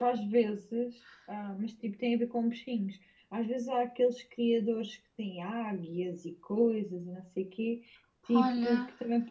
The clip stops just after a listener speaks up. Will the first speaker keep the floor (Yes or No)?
Yes